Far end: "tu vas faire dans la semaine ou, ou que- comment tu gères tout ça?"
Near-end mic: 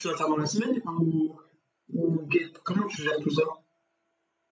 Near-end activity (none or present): none